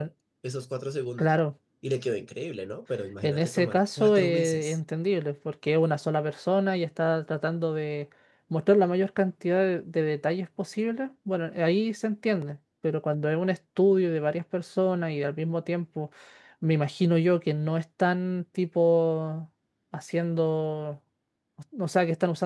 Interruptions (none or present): present